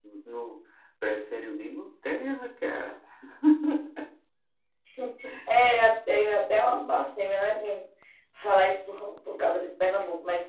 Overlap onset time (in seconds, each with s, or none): none